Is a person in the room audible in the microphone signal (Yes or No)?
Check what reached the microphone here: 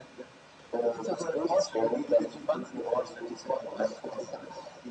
No